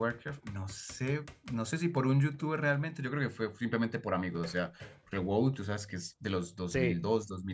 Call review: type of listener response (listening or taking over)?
listening